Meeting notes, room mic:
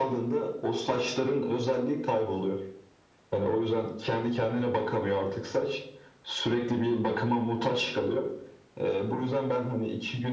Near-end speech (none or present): none